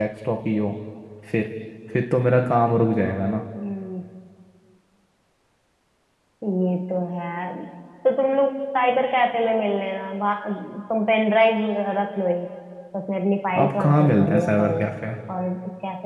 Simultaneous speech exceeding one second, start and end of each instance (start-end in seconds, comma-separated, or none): 13.6-14.8